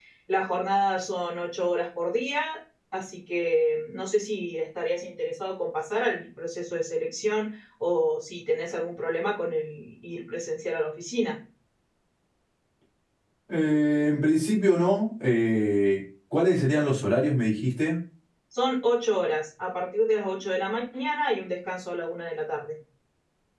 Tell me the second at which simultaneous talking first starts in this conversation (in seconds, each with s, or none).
none